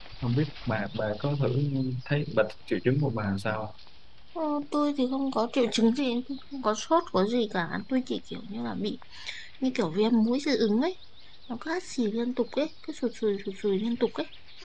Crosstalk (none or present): none